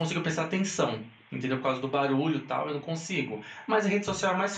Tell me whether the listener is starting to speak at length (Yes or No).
No